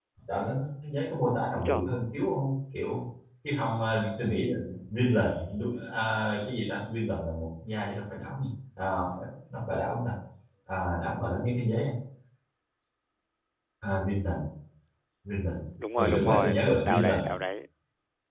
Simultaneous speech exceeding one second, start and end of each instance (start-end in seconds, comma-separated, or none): 16.0-17.2